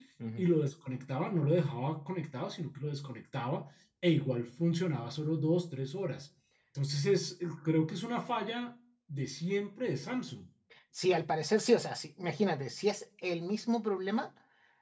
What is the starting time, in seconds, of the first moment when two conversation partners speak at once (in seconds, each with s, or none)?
none